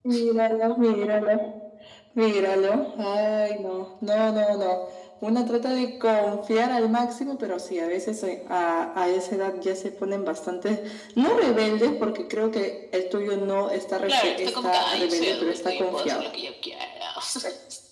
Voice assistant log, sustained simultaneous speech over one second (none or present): present